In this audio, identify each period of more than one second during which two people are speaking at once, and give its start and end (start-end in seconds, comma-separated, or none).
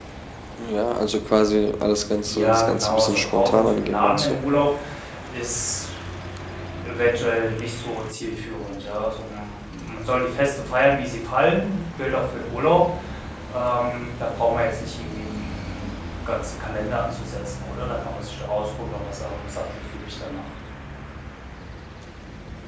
2.3-4.4